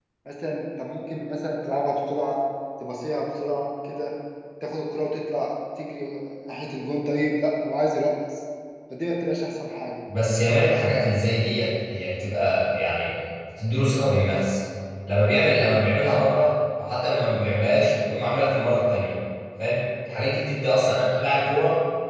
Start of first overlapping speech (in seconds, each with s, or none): none